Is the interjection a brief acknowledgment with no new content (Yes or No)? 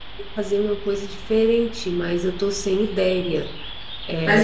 No